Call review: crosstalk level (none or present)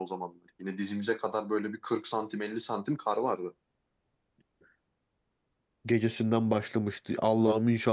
none